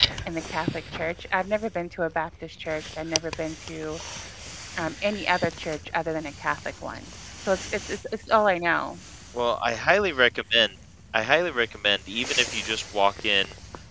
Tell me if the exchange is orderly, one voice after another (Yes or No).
Yes